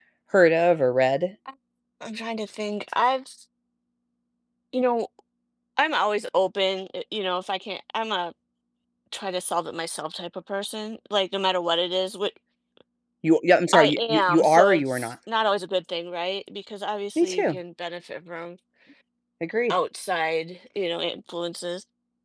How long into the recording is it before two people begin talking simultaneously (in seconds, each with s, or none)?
13.7 s